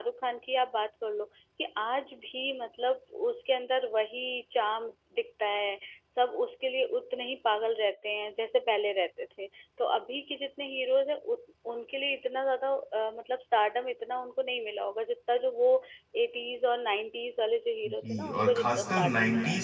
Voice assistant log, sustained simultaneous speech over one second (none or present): present